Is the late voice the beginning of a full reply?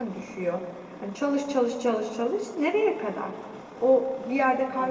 No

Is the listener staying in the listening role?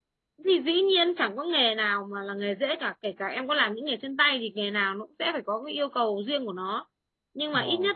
Yes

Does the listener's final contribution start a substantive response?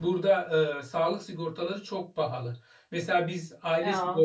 No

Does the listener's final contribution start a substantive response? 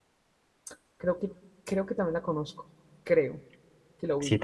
Yes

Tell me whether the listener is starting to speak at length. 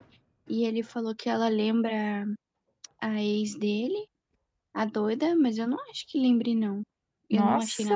Yes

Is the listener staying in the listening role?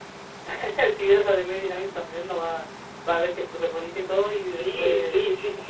No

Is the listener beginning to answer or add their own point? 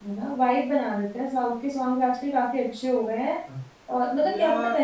No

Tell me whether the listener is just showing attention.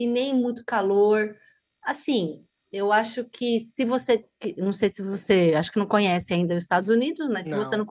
Yes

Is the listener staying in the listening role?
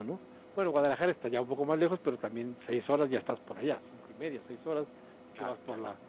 Yes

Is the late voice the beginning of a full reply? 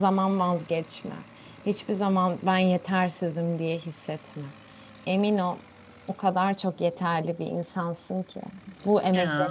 No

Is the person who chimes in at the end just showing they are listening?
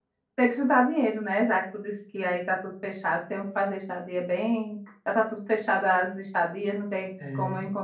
Yes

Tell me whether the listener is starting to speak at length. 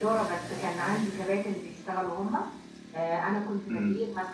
No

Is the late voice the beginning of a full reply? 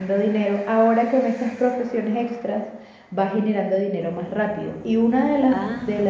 No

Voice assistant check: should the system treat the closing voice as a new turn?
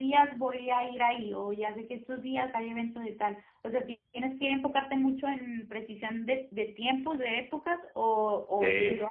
Yes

